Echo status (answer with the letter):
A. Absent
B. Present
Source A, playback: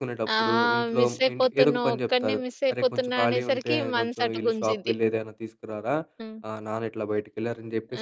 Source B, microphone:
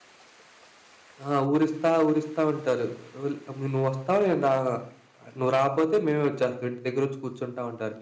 A